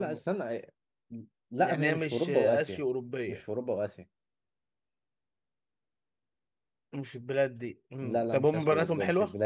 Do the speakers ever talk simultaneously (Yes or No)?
Yes